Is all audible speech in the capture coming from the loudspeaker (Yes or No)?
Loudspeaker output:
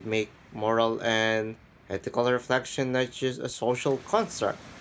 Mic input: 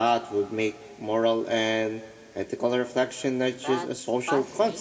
No